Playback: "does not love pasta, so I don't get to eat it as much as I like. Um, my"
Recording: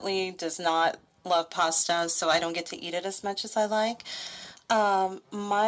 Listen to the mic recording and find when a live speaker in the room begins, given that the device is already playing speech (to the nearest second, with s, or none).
none